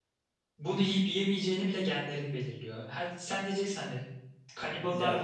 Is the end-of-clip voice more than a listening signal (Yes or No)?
No